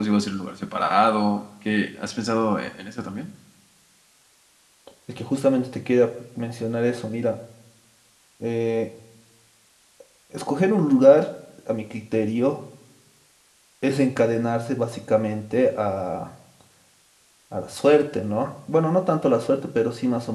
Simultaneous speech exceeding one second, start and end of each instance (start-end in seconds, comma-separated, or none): none